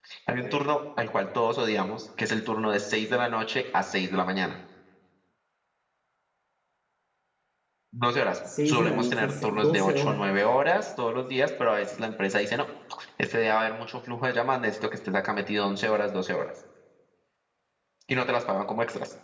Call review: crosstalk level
present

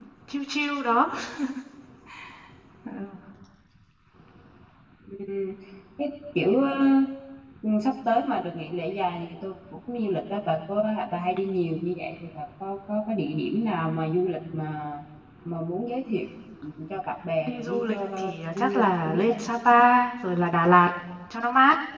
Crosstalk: present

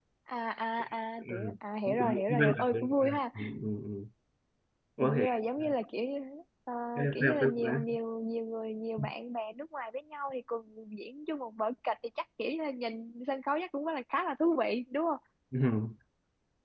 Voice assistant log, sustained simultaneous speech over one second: present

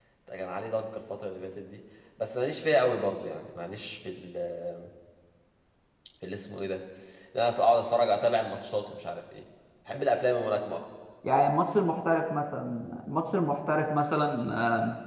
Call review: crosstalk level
none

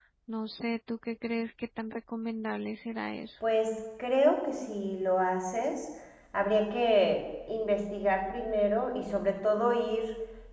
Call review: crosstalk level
none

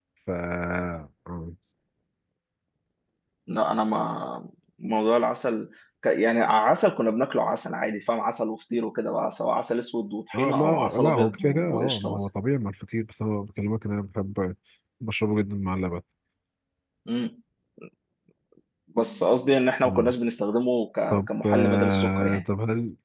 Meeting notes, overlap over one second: present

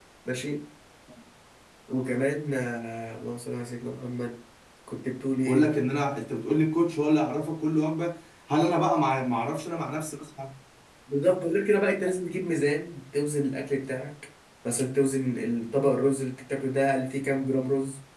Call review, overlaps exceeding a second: none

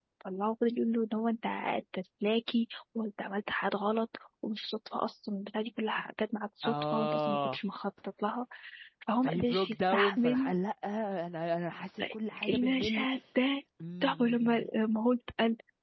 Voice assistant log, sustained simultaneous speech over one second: present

